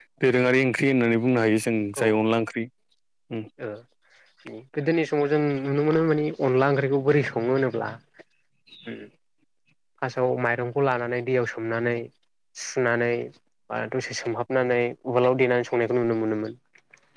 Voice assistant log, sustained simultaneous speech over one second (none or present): none